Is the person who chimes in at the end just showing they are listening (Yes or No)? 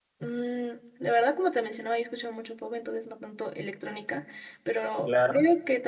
Yes